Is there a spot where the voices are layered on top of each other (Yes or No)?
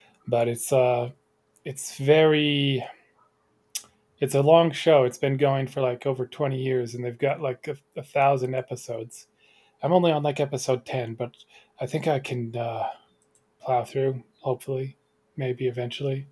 No